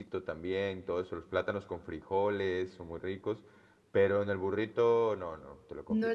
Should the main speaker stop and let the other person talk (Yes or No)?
Yes